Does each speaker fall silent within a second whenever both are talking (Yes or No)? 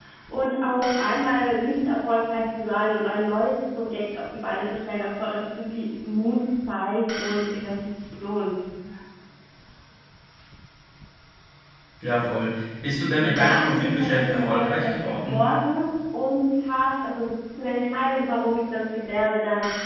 No